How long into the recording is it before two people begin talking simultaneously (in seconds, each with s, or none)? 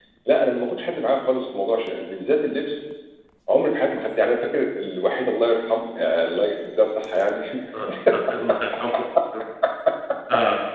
none